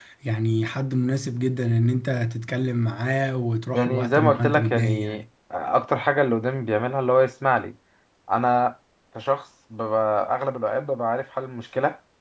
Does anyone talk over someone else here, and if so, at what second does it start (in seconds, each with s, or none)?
3.7 s